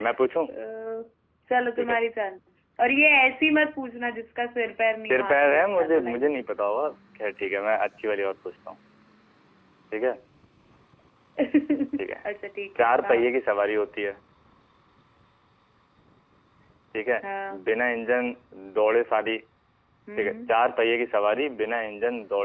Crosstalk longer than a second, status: present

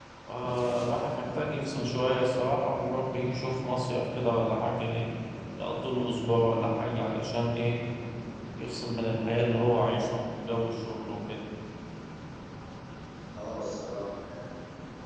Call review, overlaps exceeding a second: none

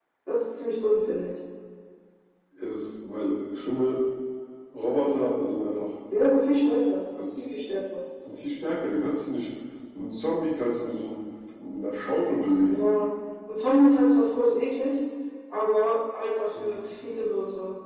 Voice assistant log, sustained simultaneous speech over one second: none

